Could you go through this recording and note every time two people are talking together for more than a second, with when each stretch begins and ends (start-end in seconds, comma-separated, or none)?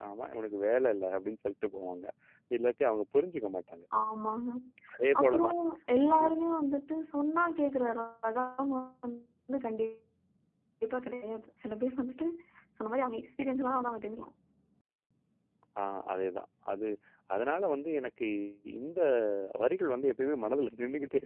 none